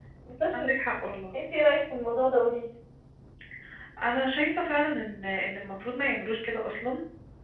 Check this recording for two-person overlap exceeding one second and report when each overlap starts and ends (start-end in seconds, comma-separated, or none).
none